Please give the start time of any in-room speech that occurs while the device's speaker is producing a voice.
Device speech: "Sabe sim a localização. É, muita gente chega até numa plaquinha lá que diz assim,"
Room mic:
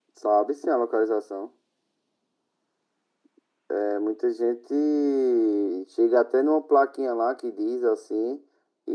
none

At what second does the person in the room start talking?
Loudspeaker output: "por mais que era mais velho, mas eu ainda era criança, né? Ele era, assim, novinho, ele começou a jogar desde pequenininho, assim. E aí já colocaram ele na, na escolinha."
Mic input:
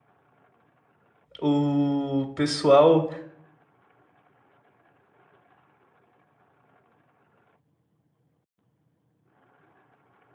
1.4 s

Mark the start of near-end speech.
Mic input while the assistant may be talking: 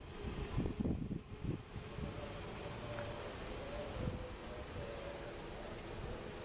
none

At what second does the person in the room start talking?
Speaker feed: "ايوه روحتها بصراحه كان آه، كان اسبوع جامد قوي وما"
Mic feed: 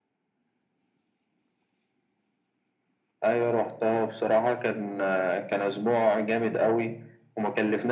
none

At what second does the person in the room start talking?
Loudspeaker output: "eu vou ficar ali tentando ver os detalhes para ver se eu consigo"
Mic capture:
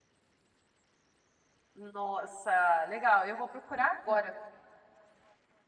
1.7 s

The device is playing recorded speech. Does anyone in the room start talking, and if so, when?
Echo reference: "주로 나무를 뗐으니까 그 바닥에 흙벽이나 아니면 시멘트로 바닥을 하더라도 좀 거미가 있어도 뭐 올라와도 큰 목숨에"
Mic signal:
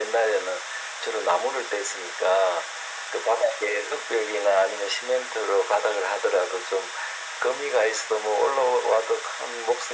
none

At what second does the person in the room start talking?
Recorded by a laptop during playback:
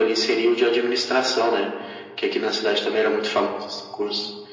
none

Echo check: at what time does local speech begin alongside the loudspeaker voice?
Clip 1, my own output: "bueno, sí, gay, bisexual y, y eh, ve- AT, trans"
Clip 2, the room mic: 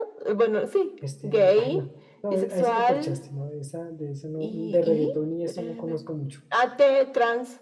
1.0 s

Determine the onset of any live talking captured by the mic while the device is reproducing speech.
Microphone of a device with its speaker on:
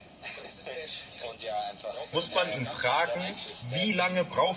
2.1 s

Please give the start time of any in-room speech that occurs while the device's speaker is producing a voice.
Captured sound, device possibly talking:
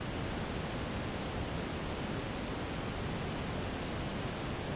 none

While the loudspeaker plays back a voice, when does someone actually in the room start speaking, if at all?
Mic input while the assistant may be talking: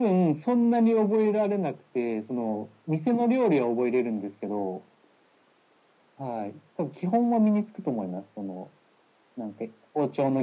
none

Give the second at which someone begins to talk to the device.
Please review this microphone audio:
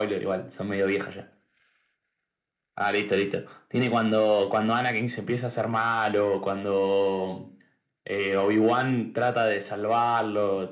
none

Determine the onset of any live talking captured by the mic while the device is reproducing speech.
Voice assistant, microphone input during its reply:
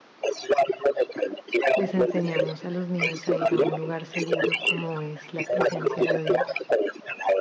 1.7 s

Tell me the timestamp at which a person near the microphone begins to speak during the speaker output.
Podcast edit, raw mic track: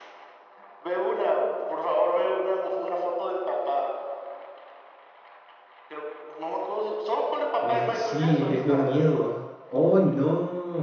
7.6 s

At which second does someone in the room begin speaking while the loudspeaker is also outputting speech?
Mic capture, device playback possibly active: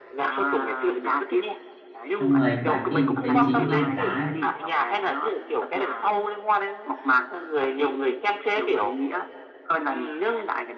2.2 s

